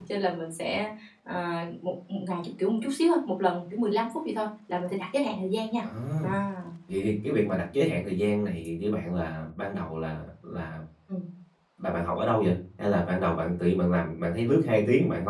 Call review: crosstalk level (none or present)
none